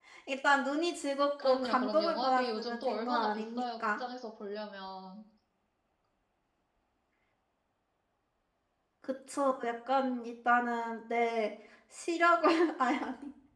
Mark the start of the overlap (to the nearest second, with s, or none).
1 s